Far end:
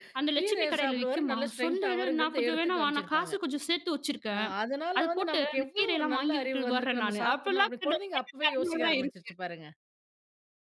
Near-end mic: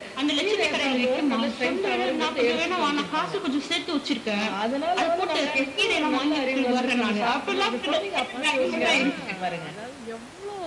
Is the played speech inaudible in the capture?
No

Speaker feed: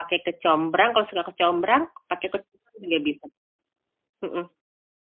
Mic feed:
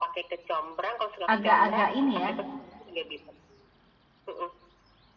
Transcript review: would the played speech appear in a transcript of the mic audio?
Yes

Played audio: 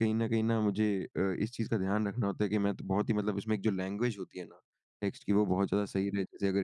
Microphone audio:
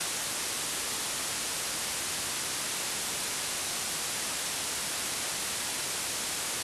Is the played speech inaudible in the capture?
Yes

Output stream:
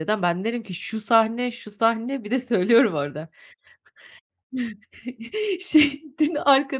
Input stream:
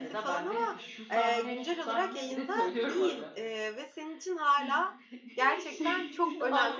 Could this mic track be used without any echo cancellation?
No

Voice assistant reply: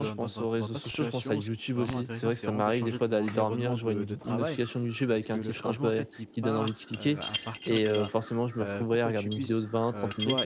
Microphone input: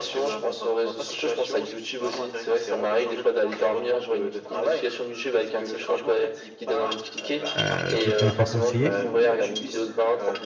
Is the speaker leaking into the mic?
Yes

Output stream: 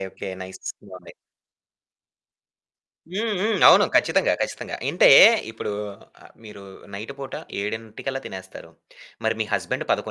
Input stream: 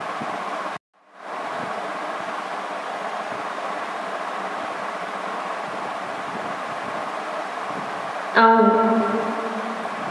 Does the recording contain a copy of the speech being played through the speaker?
No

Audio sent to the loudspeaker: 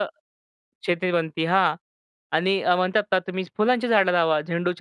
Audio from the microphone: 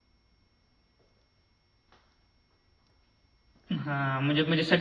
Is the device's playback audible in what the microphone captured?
No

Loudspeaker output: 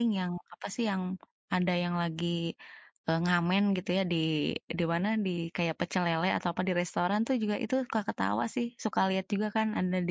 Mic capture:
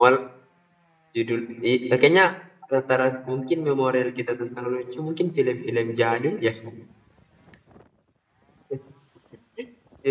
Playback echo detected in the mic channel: No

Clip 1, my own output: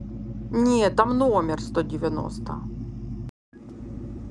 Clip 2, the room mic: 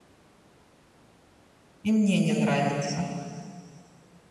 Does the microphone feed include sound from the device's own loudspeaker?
No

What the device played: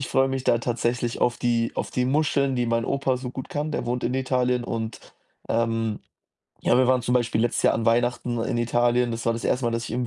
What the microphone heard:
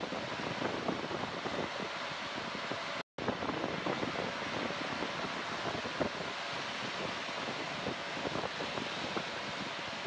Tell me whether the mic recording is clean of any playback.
Yes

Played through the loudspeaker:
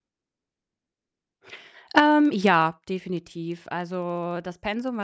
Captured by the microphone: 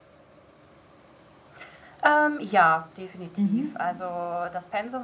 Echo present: Yes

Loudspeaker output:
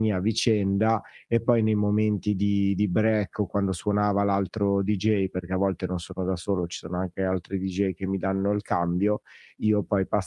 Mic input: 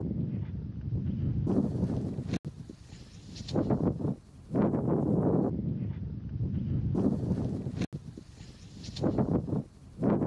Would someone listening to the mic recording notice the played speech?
No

